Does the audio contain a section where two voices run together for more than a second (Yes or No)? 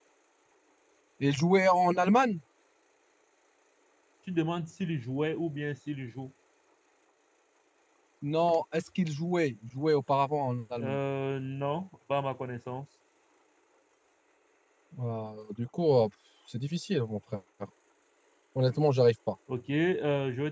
No